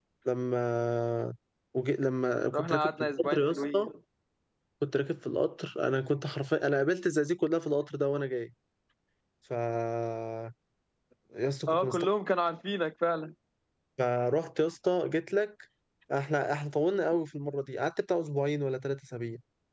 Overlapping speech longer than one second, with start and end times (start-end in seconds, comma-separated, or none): 2.5-3.8